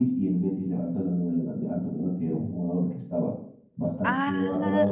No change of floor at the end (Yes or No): Yes